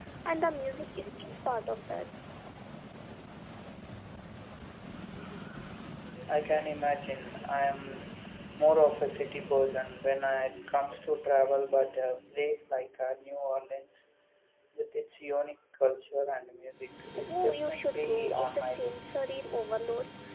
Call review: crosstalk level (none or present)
present